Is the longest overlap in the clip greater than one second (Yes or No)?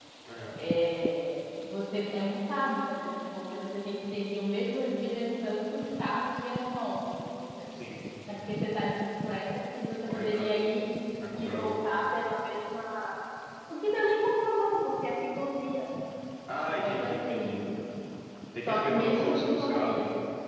Yes